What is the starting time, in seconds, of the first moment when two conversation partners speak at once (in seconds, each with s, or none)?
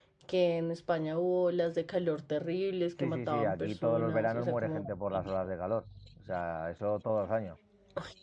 3.0 s